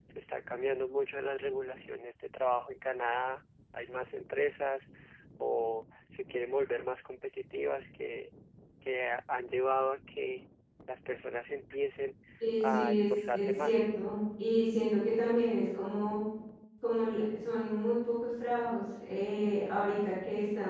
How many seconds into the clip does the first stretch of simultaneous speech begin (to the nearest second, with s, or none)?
13 s